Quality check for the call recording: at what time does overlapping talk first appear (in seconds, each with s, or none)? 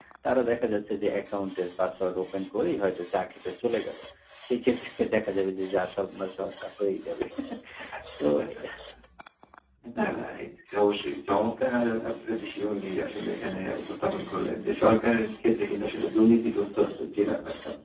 none